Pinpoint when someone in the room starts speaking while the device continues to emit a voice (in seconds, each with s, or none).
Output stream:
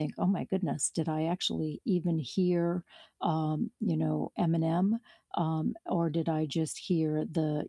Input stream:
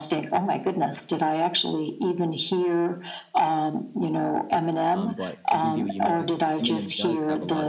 4.9 s